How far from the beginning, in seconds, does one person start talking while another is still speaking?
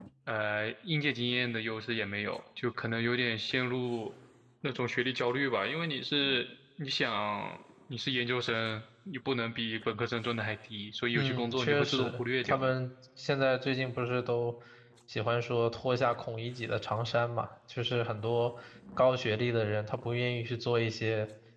11.2 s

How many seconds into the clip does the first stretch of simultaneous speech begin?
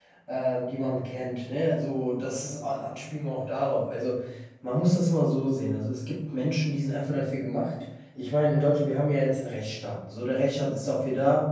none

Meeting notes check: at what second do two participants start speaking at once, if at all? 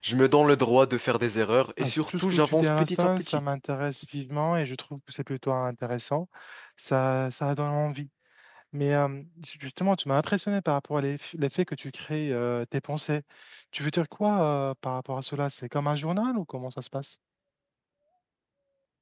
1.8 s

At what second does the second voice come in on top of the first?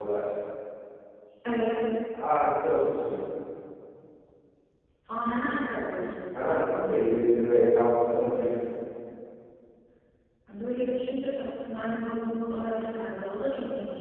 none

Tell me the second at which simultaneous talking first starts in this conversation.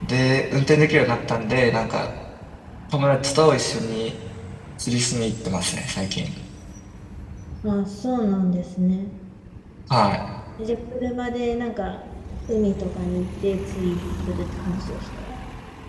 none

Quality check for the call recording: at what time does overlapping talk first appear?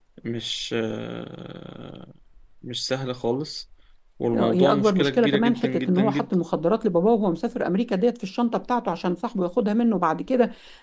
4.3 s

